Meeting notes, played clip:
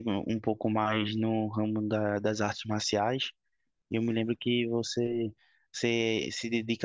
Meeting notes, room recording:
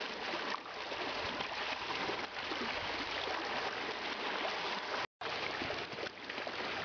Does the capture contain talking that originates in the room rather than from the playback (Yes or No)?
No